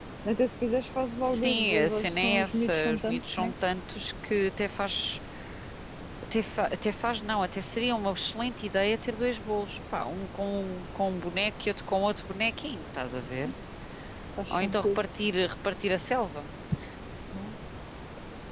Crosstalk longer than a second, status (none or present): present